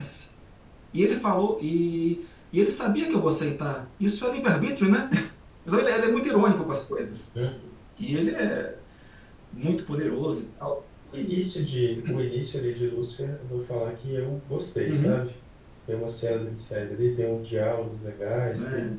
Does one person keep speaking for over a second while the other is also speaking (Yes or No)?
No